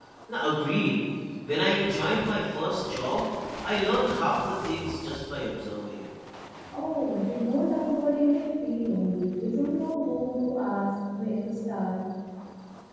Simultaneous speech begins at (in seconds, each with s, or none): none